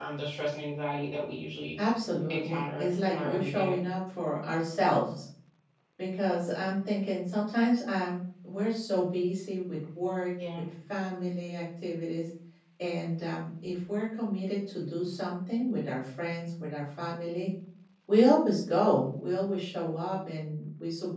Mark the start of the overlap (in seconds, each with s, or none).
2.3 s